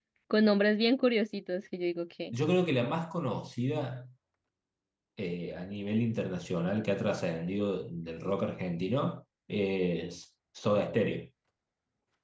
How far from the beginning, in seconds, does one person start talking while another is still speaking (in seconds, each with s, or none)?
none